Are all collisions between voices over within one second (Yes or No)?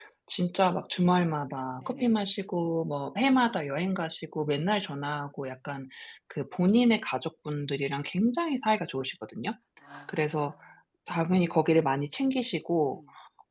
Yes